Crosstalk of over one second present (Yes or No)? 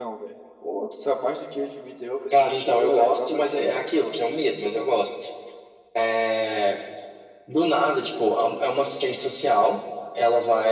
Yes